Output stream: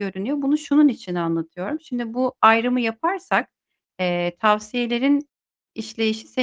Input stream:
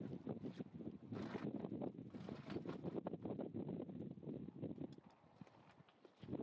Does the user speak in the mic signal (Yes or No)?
No